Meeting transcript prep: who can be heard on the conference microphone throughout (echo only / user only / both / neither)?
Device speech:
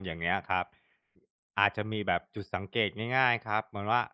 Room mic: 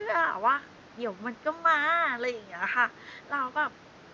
user only